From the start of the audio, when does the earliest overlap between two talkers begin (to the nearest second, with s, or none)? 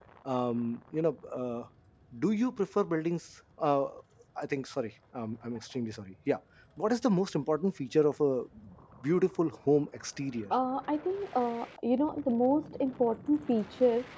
none